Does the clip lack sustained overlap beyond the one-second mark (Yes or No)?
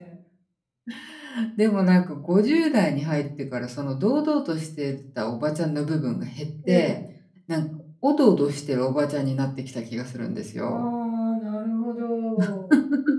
Yes